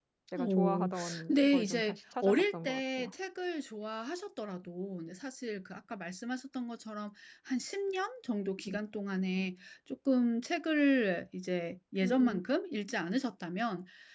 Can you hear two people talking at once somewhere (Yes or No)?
Yes